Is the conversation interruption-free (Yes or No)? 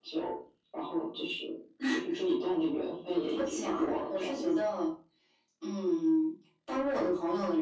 No